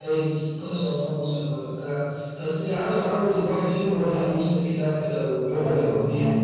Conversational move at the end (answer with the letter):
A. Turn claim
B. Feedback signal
A